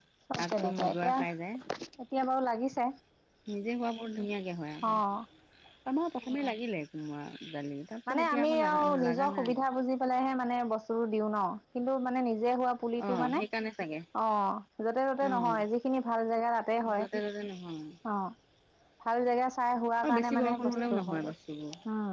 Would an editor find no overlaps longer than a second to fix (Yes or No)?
No